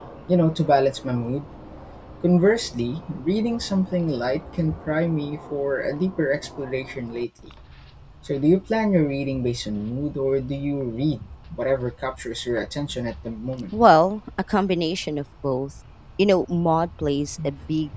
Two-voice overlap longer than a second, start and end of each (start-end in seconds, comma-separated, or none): none